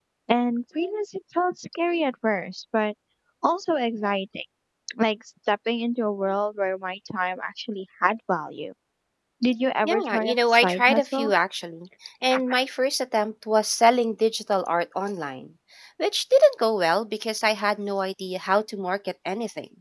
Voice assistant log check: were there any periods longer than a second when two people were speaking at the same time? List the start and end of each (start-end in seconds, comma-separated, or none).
9.8-11.3